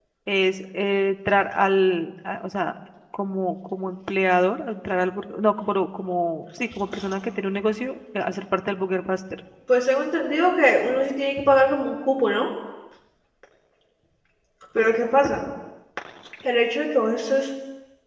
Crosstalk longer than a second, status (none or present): none